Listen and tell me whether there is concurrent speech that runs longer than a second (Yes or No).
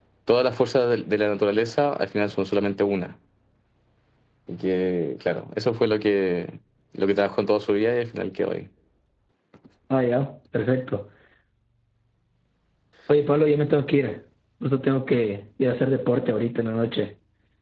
No